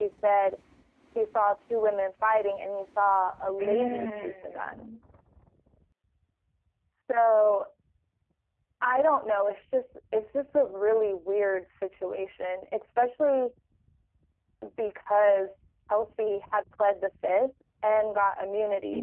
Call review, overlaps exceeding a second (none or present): present